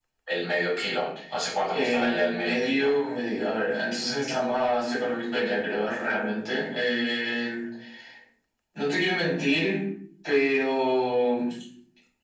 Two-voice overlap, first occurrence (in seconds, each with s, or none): 1.7 s